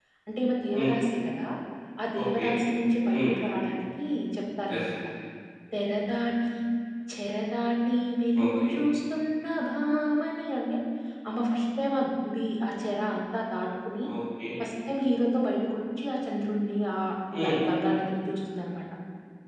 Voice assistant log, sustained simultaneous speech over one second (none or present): none